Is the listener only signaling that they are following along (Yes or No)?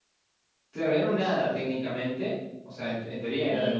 No